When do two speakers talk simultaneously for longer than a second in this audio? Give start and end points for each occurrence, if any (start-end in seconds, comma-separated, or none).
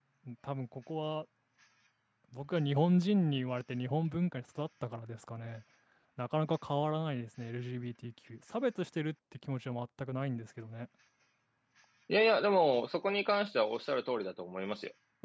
none